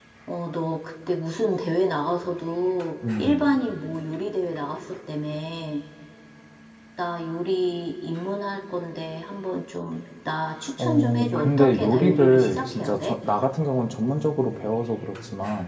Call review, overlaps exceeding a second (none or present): present